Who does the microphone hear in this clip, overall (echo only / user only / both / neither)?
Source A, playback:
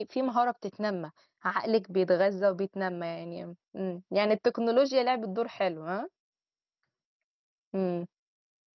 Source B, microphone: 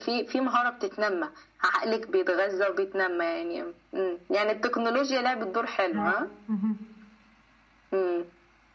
both